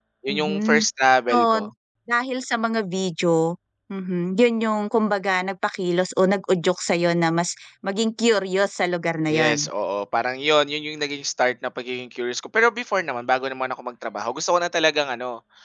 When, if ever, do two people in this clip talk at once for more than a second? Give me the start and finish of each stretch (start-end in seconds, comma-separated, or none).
none